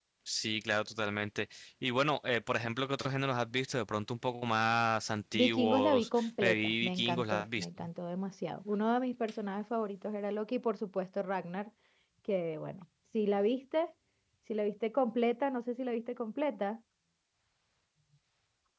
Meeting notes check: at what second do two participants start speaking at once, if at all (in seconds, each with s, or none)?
5.3 s